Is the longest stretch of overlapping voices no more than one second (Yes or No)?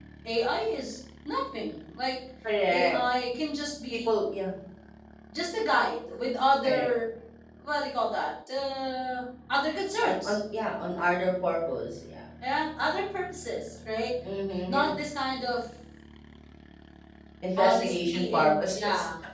No